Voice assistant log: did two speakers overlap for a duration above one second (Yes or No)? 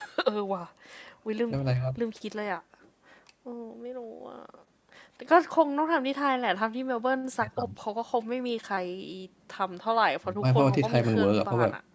Yes